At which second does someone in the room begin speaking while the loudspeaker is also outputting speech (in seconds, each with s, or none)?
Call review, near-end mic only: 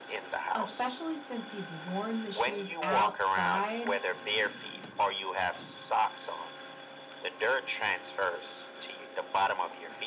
0.5 s